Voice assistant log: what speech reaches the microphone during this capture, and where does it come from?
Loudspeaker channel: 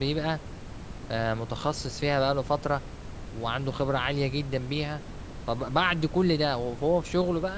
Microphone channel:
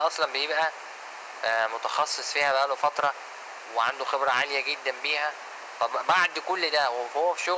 echo only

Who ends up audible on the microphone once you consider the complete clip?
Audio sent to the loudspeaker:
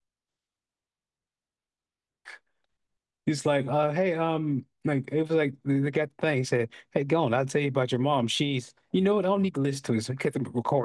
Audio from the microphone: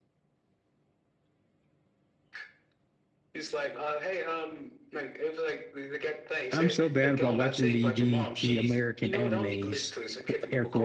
both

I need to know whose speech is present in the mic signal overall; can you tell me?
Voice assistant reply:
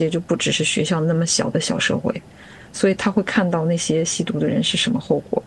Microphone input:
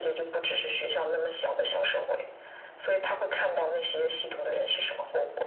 echo only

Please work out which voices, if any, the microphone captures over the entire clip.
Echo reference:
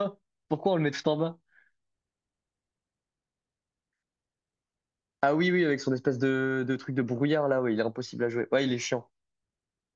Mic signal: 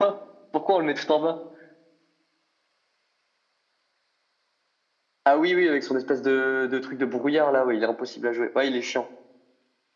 echo only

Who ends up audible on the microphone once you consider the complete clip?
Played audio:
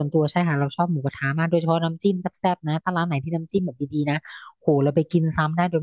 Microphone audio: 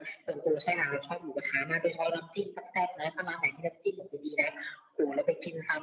echo only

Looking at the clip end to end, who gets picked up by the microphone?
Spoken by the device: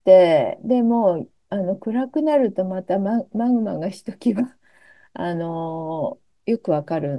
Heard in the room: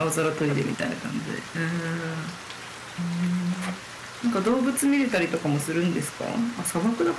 user only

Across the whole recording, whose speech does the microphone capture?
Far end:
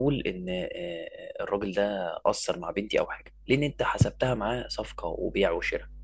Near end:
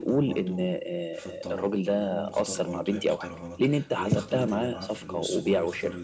both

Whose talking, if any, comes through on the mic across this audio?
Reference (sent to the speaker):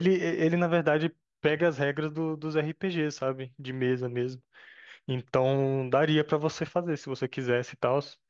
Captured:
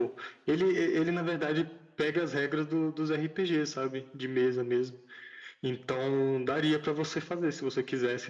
echo only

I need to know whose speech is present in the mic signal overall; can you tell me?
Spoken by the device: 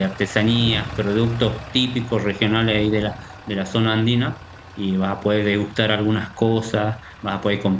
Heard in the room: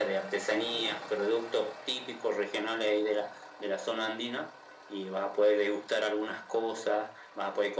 echo only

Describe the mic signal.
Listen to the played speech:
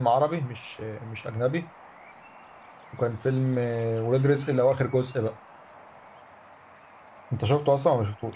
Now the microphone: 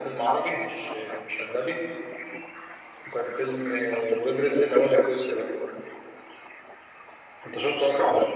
echo only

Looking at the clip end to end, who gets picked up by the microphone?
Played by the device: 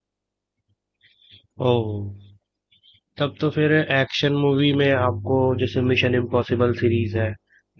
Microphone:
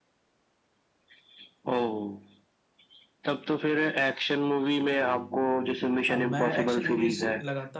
both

